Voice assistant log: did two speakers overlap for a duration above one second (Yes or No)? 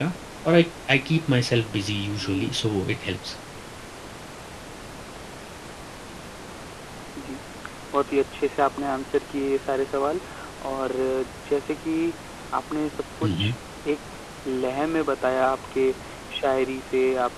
No